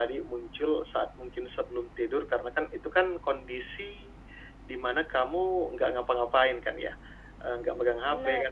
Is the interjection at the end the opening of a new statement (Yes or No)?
No